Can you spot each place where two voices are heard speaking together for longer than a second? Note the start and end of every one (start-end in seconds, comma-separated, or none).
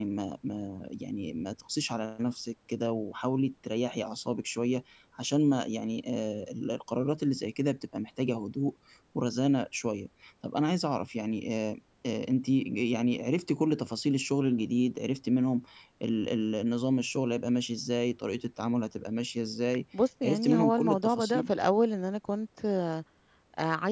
20.2-21.5